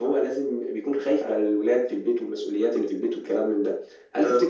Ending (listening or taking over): listening